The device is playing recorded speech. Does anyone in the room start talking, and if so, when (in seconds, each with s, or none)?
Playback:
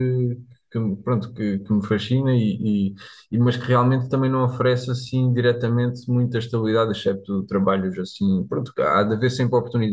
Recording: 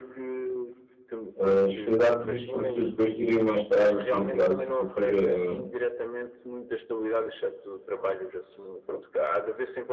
1.4 s